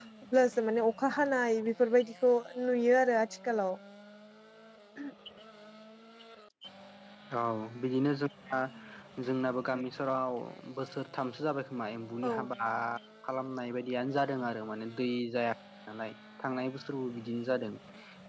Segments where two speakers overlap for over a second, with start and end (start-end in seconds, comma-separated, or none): none